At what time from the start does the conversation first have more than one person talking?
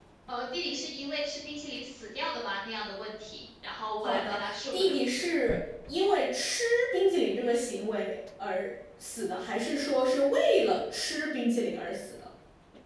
4.0 s

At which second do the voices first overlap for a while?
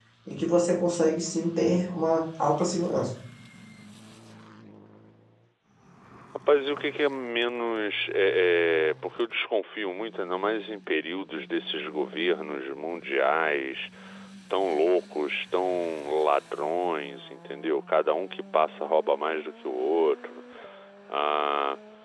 none

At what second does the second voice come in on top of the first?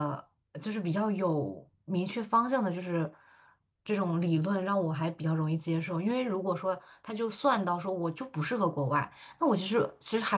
none

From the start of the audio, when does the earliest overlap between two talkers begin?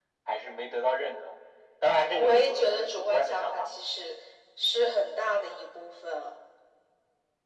2.2 s

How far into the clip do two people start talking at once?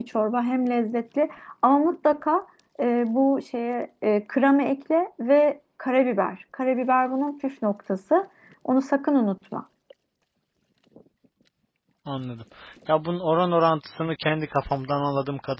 none

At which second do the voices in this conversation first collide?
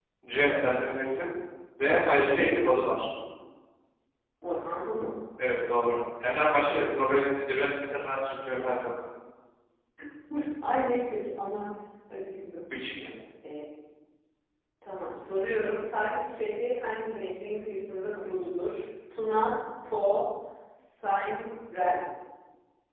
none

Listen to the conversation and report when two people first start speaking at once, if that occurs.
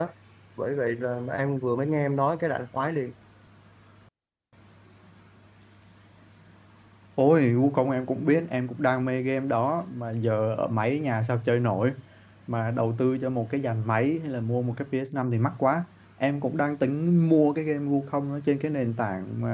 none

